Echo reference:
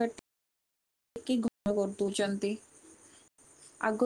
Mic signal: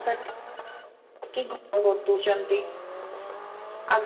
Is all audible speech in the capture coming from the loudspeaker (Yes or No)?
Yes